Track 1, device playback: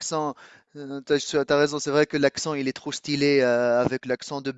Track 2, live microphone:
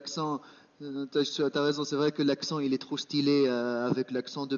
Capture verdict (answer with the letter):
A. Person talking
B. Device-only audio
B